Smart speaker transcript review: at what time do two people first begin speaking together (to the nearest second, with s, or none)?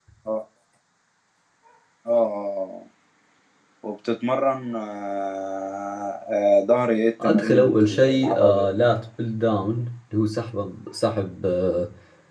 7 s